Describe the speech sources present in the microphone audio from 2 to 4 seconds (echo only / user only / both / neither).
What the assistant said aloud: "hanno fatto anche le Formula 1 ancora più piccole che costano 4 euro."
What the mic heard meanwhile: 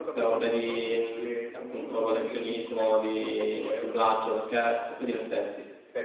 both